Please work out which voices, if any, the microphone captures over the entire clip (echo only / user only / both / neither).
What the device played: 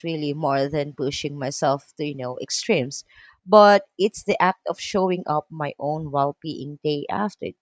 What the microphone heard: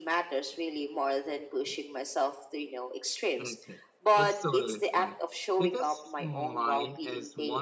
both